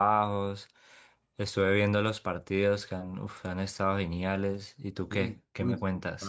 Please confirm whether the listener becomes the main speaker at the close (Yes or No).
Yes